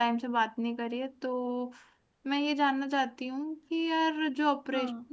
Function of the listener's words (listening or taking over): listening